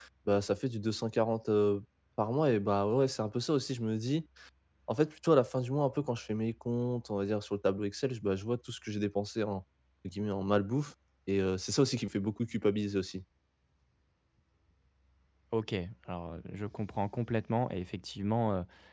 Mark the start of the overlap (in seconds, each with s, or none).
none